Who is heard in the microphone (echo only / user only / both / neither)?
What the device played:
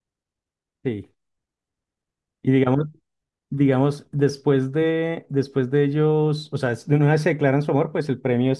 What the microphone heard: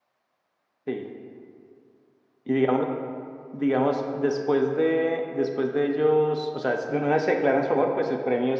echo only